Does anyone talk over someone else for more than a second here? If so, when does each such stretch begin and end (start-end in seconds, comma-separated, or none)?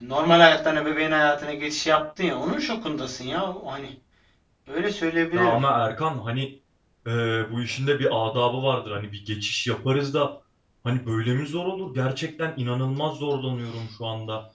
none